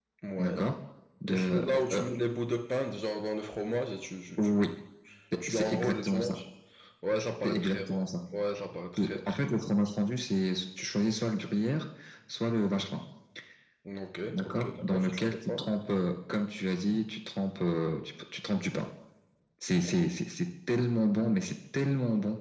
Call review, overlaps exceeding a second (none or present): present